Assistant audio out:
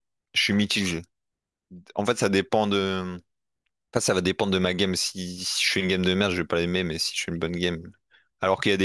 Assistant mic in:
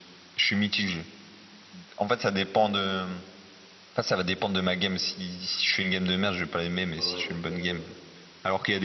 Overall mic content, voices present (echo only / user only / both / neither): both